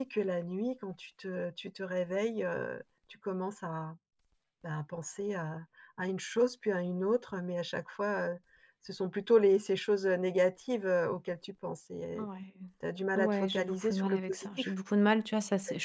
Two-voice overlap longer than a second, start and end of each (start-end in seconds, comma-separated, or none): 13.2-14.7